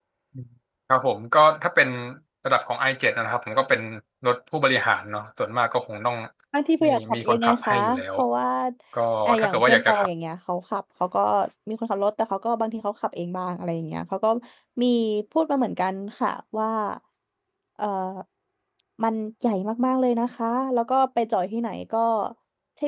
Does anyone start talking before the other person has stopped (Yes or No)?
Yes